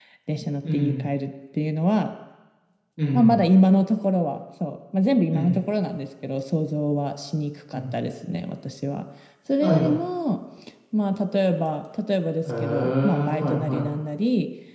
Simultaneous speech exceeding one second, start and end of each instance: 12.4-13.9

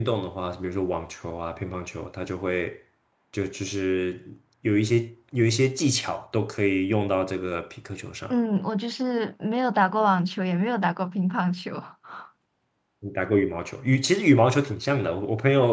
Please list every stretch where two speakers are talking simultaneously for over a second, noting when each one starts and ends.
none

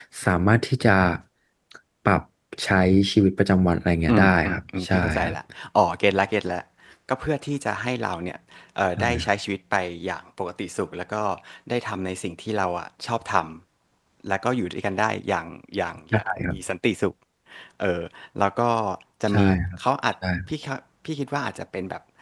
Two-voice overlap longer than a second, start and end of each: 4.1-5.3

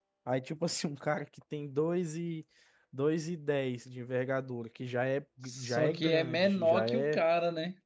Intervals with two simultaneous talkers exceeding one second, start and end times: 5.5-7.2

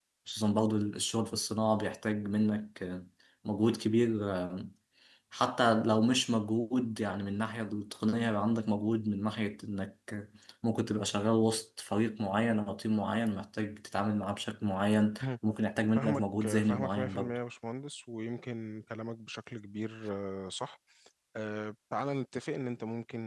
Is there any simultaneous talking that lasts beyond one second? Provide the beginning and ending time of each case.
16.0-17.4

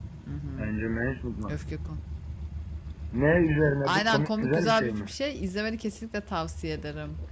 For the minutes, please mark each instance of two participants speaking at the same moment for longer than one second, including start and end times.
3.8-5.1

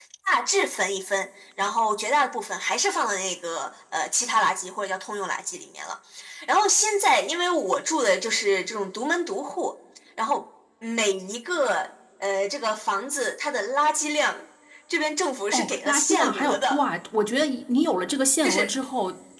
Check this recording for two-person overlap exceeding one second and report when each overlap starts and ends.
15.5-16.8

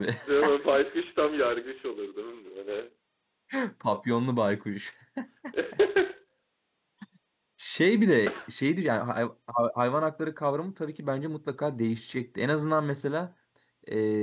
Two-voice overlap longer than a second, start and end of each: none

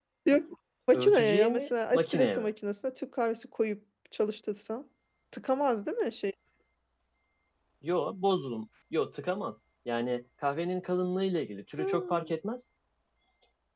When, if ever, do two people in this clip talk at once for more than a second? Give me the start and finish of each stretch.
0.9-2.5

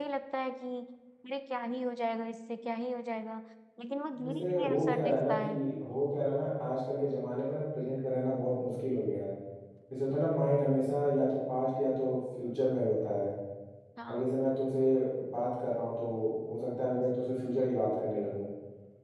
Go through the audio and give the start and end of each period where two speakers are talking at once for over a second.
4.2-5.6

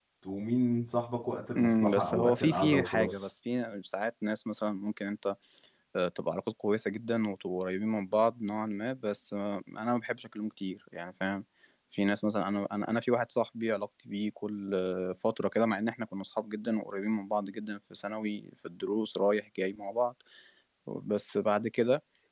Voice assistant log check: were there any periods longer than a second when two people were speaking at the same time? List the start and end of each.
1.6-3.3

